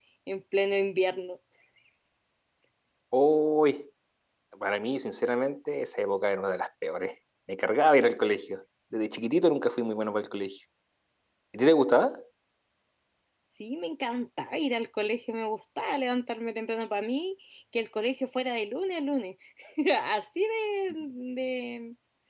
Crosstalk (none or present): none